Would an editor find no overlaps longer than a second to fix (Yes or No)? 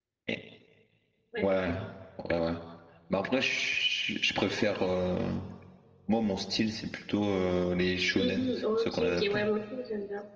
No